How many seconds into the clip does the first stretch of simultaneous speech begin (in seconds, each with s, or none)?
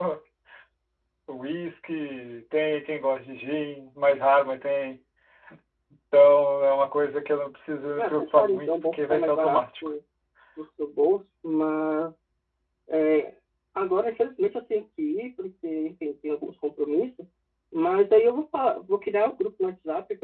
8.0 s